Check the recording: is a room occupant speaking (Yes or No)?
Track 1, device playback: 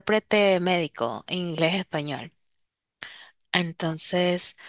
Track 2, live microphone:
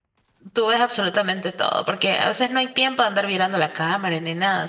Yes